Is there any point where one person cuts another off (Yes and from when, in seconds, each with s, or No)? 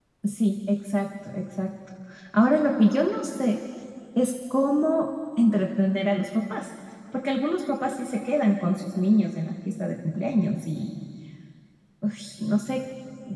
No